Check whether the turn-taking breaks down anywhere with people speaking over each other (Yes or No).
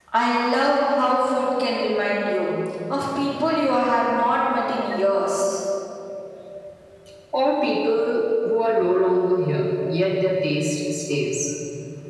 No